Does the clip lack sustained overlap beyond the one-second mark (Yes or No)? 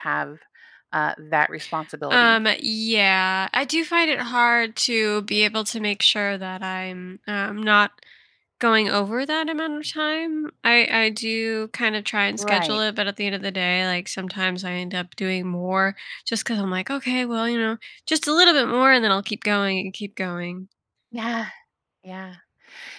Yes